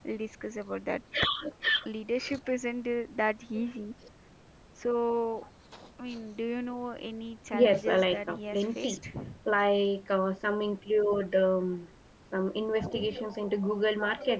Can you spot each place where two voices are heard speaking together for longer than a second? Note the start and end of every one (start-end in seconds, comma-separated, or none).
7.5-9.0